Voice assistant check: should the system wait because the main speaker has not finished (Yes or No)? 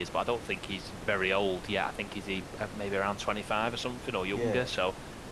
Yes